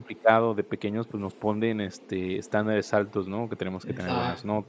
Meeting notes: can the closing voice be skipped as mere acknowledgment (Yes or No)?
Yes